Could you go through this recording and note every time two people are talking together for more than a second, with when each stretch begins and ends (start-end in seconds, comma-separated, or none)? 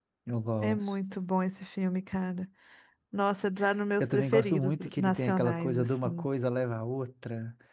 4.0-6.3